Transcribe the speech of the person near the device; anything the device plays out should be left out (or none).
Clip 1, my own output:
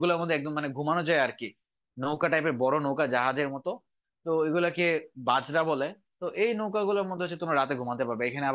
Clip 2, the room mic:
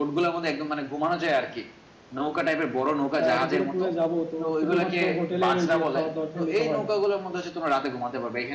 আহ, এত দূরে ট্যুরে যাব তো শুধুমাত্র হোটেলের ওই যে খাবার দাবার খেলেই তো হয় না